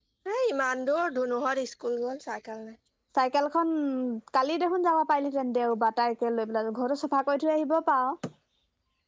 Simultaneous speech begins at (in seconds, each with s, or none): none